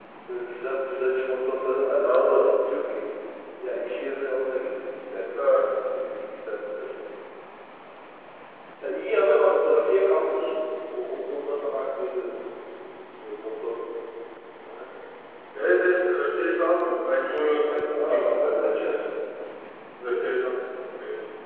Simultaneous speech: Yes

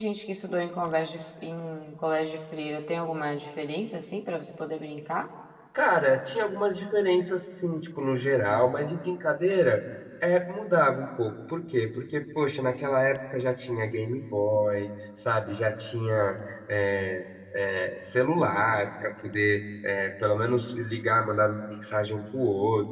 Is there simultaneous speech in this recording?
No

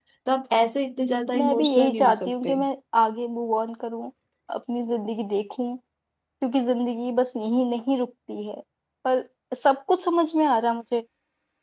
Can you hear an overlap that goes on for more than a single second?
Yes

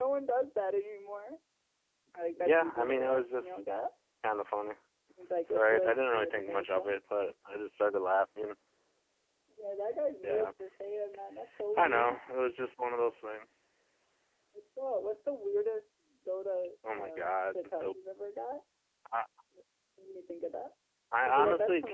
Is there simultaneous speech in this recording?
Yes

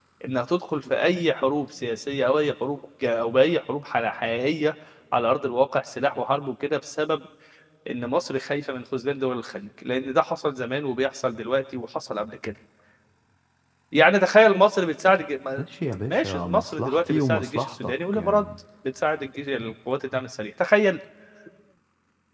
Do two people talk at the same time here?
Yes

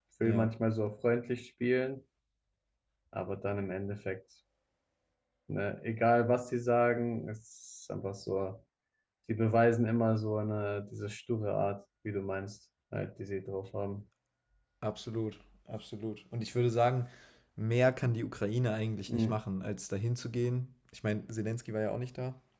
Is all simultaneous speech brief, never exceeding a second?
Yes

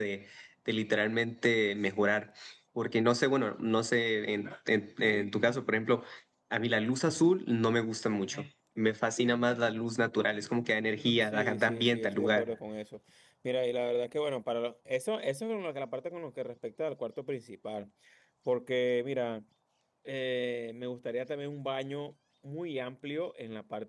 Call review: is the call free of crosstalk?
No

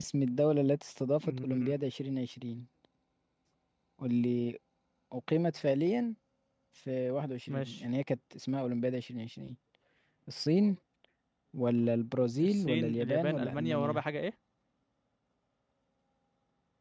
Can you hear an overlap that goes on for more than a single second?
Yes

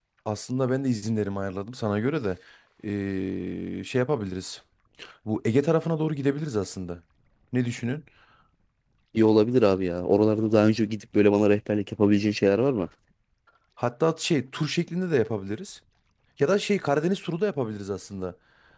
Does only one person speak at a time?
Yes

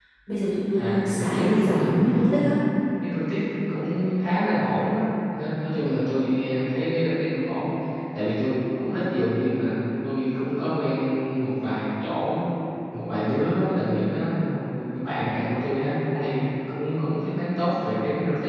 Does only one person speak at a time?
No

